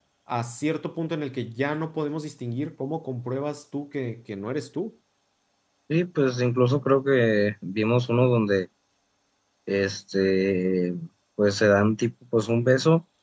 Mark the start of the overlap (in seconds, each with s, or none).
none